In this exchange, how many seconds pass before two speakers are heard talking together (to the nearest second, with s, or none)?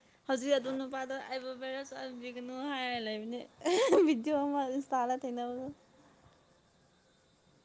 none